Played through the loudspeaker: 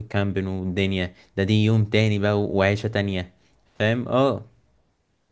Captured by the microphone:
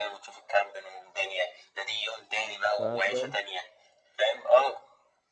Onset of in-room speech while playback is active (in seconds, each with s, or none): 2.8 s